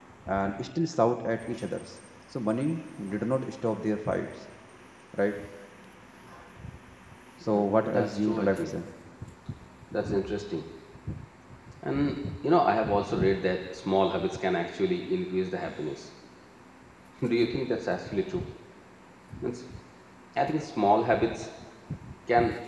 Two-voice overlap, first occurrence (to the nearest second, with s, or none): 7 s